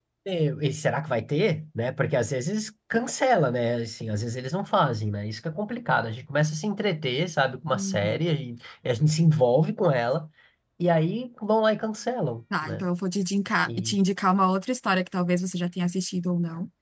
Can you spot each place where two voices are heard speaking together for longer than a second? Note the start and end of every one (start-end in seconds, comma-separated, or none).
none